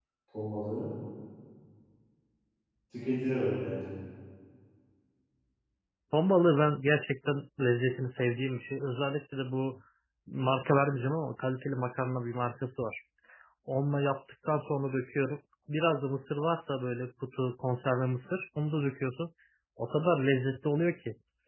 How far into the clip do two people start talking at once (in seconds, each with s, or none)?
none